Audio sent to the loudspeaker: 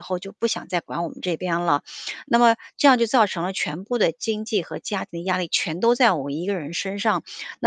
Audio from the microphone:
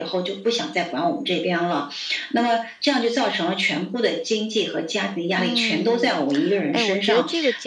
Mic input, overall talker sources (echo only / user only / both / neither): both